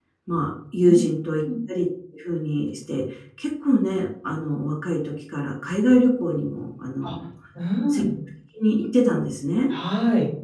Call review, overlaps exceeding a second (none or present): none